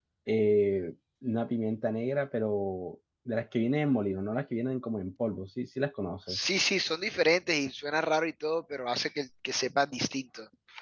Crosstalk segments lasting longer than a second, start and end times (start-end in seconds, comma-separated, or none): none